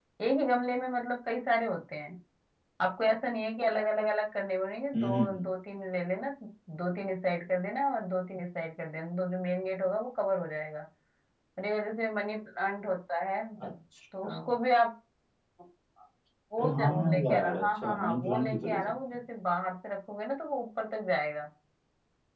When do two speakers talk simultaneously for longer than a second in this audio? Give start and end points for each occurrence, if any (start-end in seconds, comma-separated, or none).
16.6-18.9